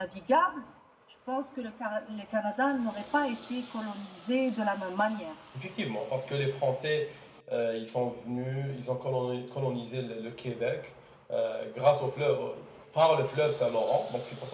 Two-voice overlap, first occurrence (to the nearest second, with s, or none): none